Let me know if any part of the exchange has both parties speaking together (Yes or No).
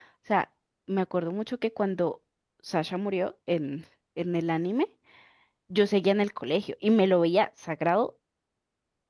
No